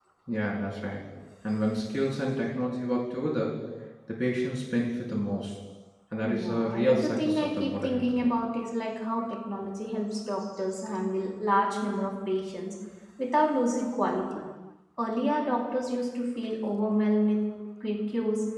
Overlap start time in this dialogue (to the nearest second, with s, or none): 6 s